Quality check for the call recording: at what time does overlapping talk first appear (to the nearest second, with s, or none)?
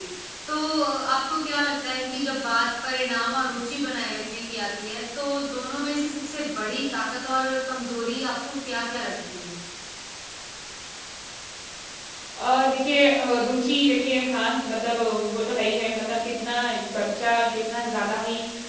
none